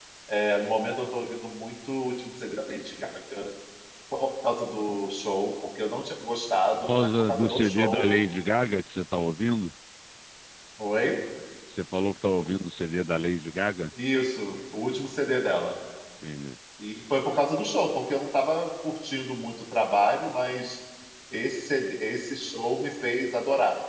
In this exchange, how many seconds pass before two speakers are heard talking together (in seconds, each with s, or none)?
6.8 s